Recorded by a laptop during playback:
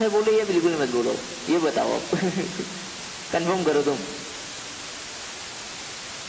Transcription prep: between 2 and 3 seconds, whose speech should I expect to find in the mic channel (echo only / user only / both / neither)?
echo only